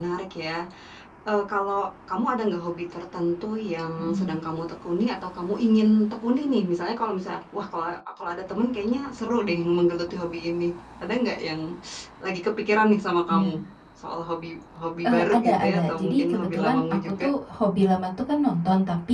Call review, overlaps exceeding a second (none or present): present